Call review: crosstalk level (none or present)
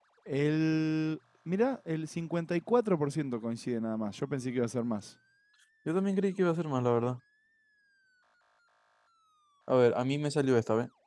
none